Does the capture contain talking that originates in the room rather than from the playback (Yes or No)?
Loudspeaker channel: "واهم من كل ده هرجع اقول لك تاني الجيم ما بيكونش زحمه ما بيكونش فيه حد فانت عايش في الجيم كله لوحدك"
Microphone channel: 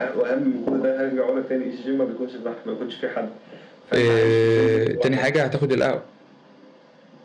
Yes